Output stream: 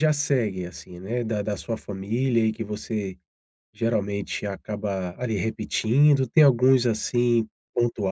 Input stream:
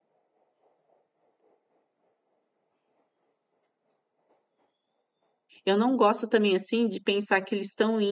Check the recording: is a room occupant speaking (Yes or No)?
Yes